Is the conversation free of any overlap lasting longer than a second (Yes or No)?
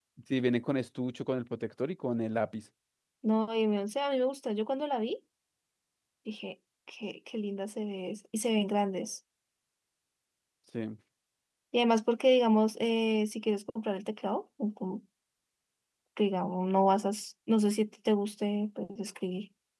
Yes